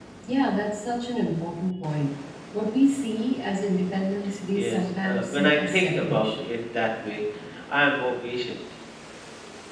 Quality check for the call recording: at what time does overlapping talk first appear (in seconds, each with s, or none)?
4.5 s